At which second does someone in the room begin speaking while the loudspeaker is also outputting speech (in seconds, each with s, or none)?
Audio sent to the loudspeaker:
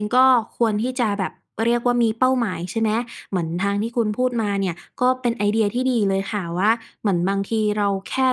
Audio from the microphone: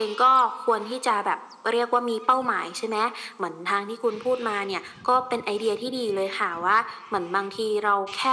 none